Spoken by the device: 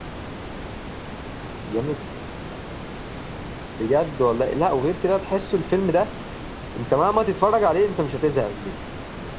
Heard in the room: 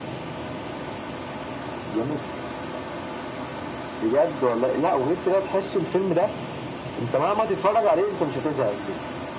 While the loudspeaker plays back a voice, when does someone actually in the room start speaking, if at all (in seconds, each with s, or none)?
none